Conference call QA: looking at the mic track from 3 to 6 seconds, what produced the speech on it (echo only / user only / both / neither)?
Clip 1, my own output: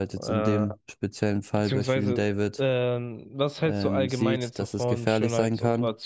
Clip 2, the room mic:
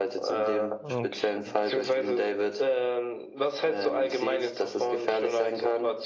echo only